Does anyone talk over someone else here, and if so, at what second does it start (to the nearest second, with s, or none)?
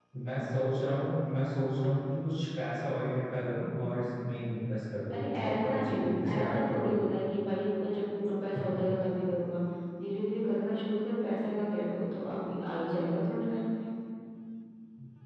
5 s